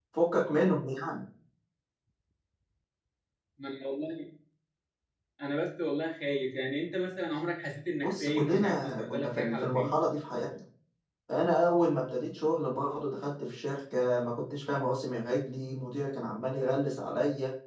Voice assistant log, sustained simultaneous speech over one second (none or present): present